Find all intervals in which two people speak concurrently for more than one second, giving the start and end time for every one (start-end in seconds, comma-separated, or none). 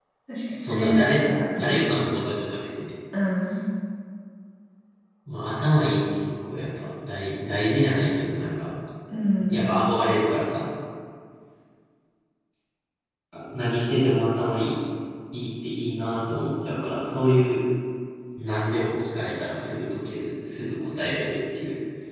0.6-2.0